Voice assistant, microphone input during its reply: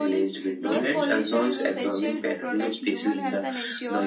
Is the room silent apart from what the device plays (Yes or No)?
No